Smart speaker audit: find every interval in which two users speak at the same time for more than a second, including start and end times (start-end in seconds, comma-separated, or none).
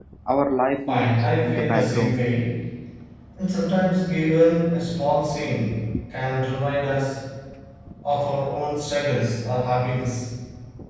0.9-2.3